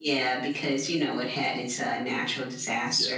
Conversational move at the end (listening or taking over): taking over